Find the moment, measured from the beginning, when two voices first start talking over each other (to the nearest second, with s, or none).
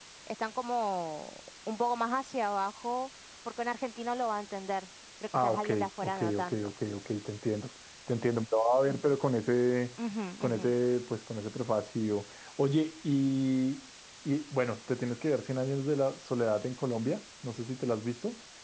5 s